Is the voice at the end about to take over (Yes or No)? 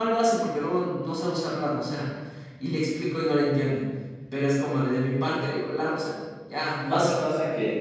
Yes